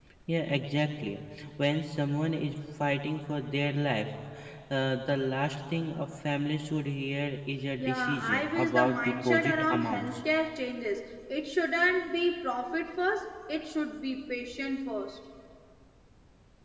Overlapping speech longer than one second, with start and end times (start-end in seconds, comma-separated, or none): 7.8-10.1